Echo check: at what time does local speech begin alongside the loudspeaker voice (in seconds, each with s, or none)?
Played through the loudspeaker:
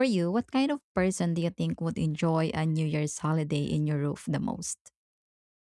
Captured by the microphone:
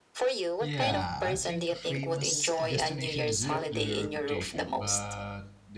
0.6 s